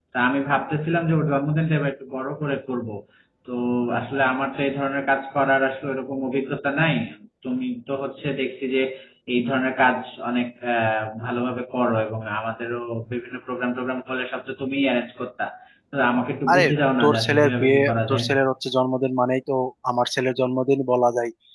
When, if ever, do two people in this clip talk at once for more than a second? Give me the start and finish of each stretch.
17.0-18.2

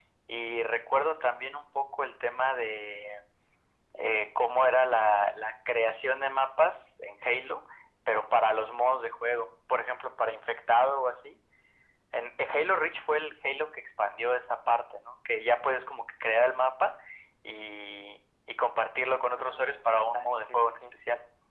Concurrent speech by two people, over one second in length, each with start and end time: 19.4-20.9

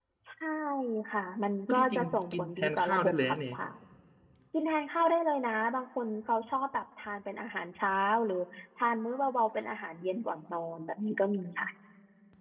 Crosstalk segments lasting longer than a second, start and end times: 1.7-3.4

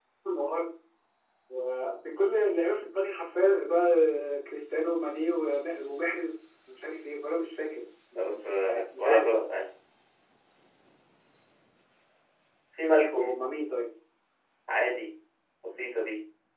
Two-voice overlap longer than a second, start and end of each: 8.2-9.4

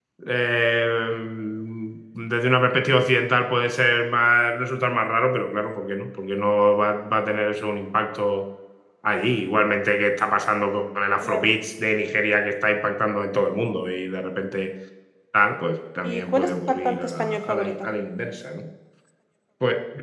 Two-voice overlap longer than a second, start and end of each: 16.0-17.7

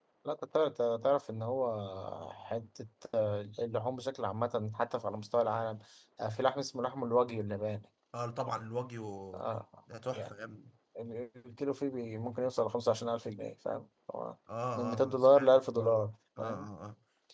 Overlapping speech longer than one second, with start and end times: 14.8-16.0

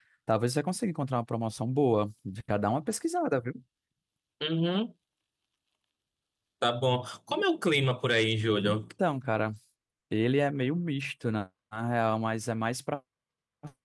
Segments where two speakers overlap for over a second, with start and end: none

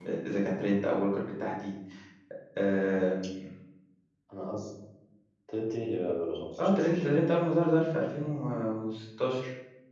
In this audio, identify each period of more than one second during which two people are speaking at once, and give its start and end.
none

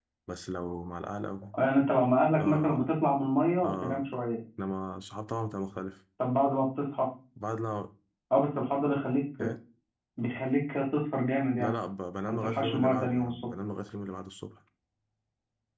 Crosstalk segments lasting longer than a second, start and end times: 12.3-13.5

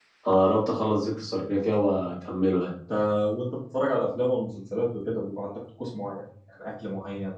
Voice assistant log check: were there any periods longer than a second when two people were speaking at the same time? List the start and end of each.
none

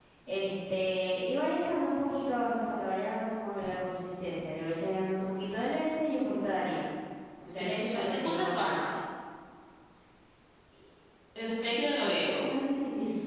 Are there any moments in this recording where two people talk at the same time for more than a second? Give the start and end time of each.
7.5-8.8

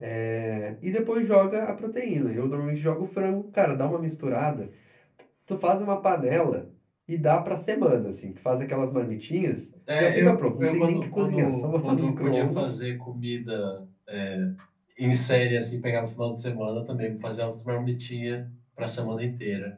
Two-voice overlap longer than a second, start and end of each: 10.0-12.6

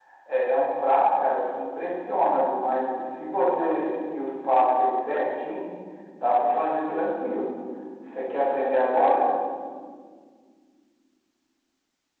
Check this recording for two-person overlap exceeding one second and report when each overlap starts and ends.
none

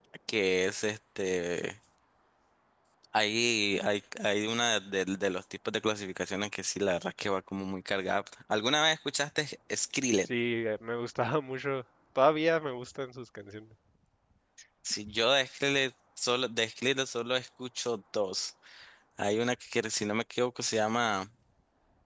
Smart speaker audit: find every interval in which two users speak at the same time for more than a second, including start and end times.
none

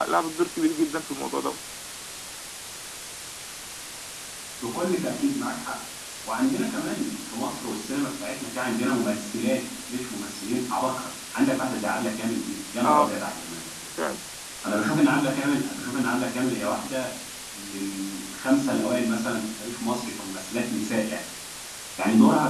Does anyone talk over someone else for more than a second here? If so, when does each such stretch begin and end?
none

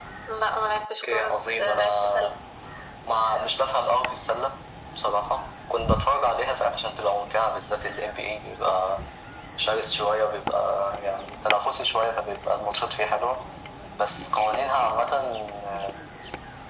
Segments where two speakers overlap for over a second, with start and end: 1.0-2.3

